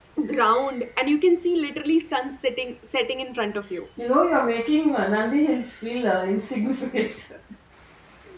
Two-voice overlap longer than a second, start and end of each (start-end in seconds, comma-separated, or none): none